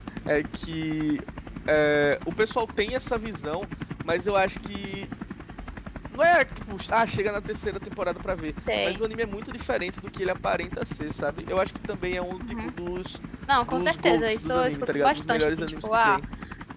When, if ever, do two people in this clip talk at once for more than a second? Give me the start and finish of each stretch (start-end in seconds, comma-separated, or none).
13.7-16.2